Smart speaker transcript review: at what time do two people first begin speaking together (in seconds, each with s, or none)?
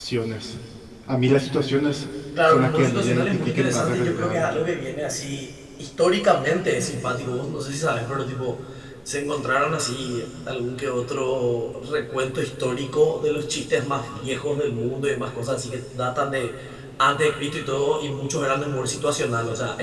2.4 s